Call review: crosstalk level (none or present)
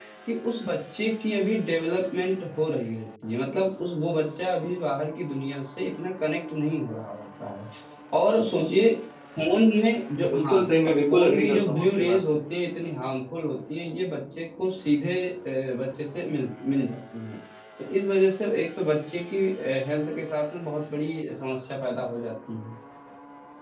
present